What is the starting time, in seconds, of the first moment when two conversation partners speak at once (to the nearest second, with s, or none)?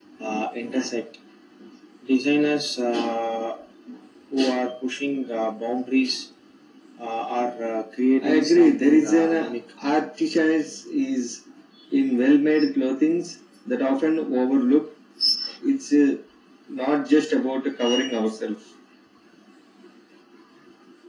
8 s